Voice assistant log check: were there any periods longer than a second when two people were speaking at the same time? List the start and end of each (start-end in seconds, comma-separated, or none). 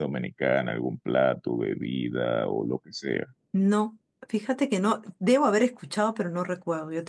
none